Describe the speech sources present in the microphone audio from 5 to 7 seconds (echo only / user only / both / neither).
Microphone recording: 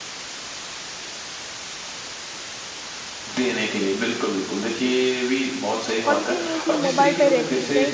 both